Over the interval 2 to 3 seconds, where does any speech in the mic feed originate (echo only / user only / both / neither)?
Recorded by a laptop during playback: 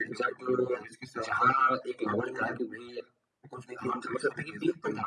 echo only